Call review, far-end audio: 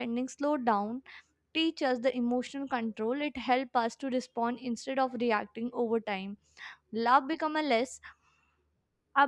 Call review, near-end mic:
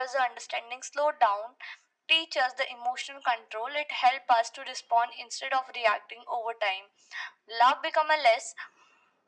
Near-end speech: none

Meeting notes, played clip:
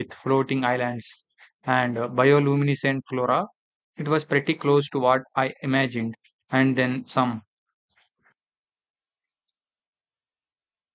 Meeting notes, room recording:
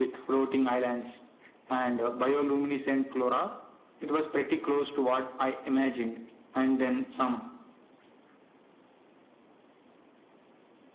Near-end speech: none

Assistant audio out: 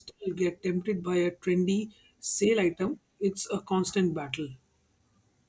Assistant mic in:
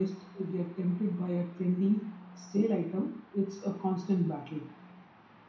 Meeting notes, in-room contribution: none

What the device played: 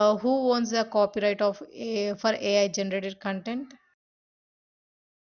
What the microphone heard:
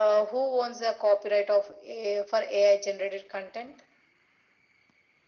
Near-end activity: none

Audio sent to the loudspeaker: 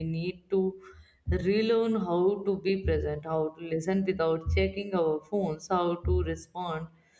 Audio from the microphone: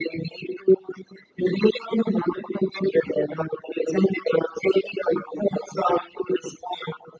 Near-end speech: none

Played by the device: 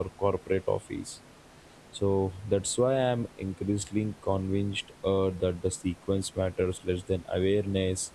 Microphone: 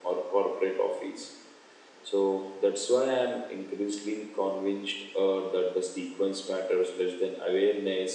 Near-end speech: none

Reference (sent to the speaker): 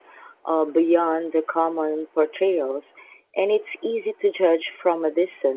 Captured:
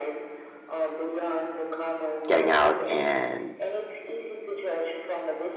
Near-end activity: present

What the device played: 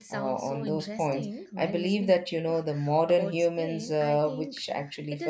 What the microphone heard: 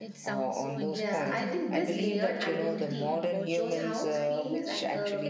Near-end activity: present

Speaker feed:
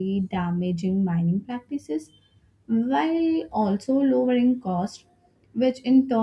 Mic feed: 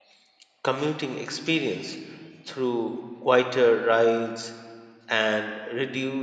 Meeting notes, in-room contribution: present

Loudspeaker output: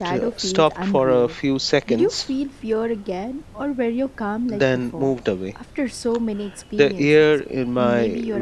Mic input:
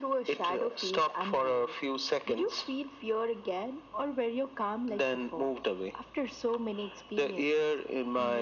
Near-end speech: none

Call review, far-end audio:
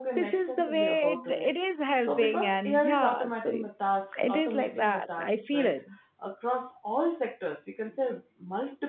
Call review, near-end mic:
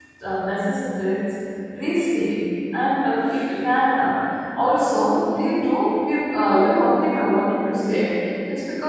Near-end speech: present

